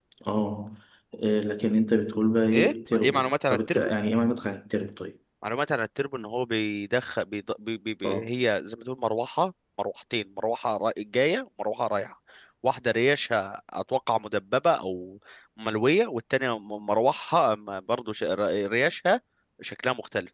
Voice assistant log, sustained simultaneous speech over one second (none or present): present